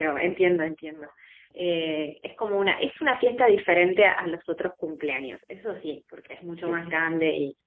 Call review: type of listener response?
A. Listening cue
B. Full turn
A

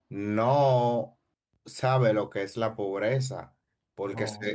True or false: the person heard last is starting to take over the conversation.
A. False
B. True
A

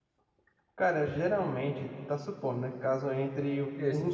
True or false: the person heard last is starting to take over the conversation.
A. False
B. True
A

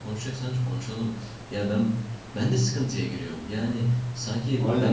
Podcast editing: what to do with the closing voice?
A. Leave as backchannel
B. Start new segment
A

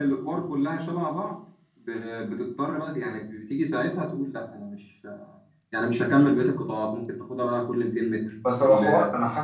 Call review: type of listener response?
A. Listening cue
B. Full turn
B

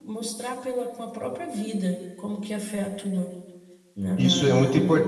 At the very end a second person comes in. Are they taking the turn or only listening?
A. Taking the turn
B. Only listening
A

